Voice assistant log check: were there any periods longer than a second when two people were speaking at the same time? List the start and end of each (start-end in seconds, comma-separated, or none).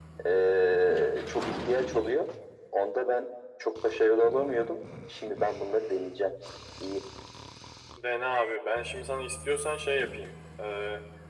none